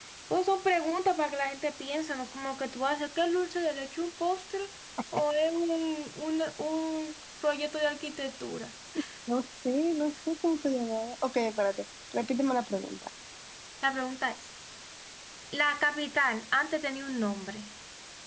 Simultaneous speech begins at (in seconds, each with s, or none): none